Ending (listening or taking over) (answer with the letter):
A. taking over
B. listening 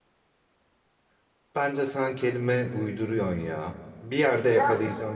B